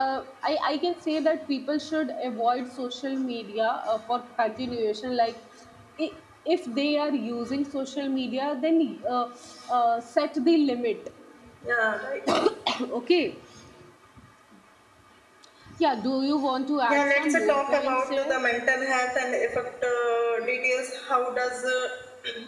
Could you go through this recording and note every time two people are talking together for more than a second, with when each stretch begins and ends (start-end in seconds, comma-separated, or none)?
16.9-18.4